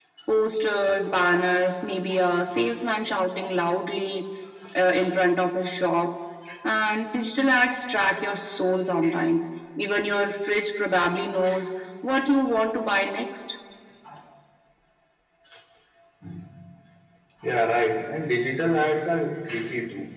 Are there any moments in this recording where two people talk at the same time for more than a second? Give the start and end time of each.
none

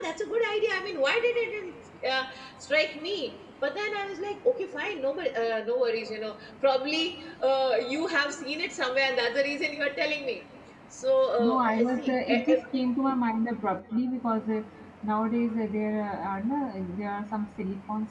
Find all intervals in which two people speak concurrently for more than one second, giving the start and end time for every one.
11.4-12.6

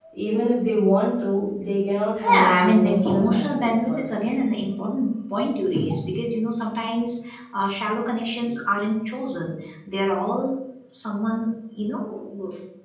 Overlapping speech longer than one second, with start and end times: 2.2-4.1

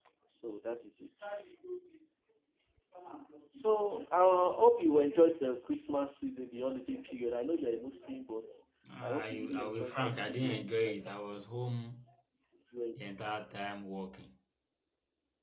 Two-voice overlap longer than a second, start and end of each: 9.0-11.0

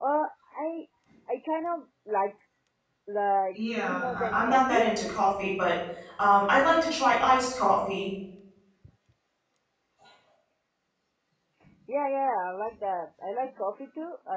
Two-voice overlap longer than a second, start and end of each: 3.5-4.8

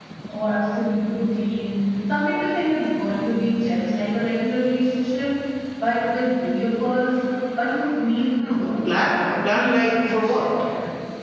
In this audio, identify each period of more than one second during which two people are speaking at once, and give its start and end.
8.3-10.4

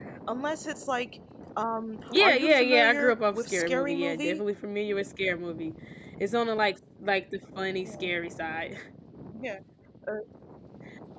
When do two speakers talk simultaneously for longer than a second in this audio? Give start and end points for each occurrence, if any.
2.1-4.4

